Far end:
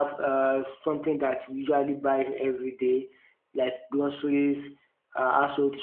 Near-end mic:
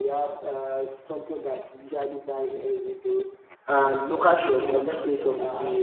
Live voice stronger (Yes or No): Yes